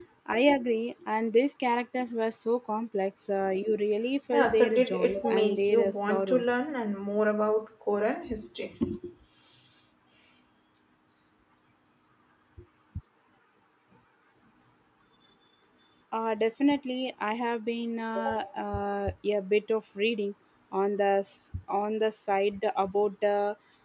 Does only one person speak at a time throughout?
No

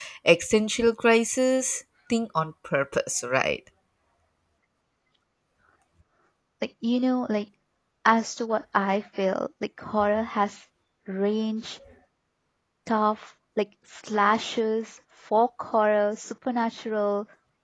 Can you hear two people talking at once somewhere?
No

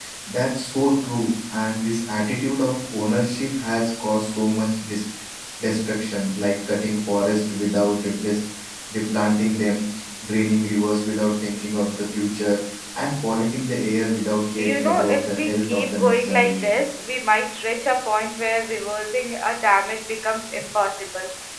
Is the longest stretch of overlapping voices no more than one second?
No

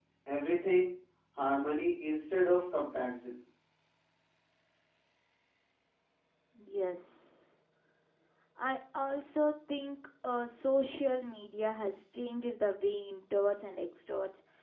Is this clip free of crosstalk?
Yes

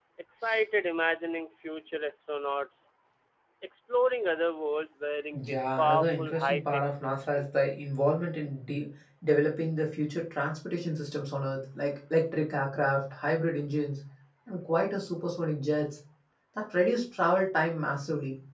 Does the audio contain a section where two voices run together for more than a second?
Yes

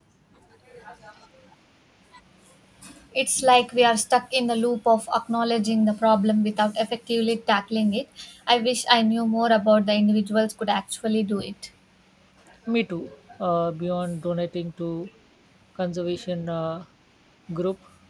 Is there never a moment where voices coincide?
Yes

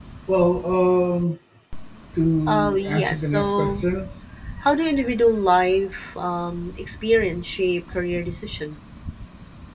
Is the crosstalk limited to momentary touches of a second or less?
No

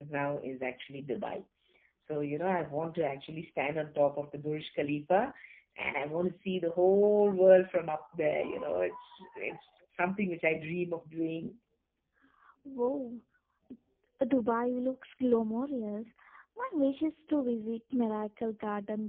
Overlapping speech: No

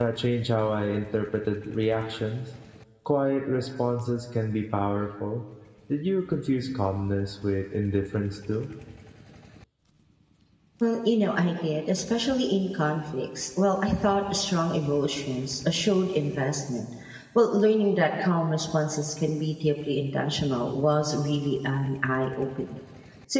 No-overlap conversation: Yes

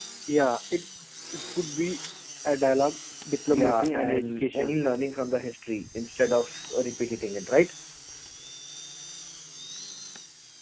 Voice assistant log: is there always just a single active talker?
No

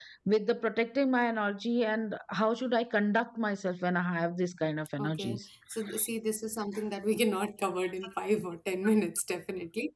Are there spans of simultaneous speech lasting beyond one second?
No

